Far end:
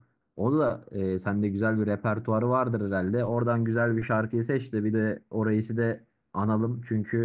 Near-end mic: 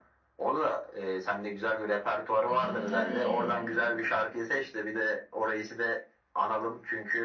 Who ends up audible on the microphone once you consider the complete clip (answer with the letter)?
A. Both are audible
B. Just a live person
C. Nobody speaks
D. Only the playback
A